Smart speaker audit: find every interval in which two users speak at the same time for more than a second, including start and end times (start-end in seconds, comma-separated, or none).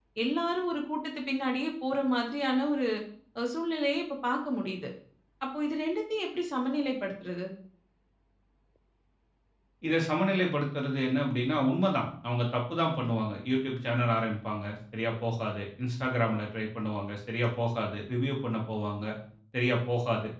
none